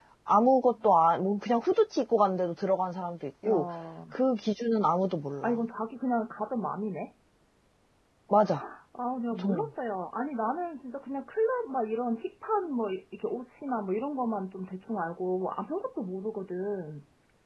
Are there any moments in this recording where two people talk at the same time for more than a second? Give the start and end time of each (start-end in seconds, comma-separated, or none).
none